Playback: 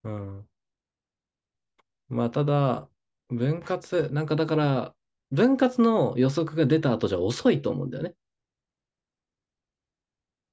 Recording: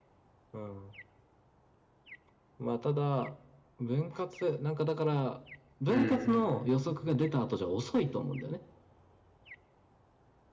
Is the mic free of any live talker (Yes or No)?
No